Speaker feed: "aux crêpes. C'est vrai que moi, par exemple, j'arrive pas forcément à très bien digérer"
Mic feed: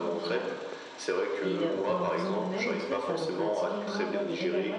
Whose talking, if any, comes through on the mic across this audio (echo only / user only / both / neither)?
both